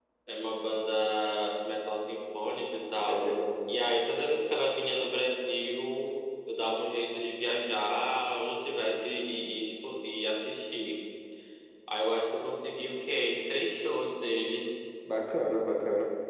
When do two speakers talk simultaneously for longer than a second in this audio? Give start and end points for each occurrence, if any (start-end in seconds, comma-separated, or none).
none